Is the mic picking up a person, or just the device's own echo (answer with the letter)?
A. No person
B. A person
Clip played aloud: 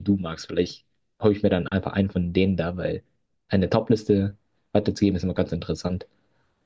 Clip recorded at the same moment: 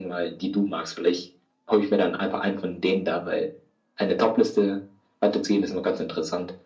A